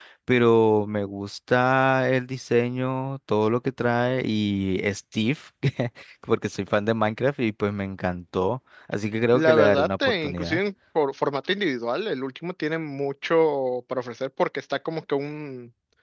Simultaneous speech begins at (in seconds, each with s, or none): 9.3 s